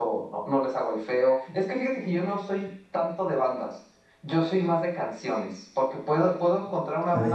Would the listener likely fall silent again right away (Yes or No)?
Yes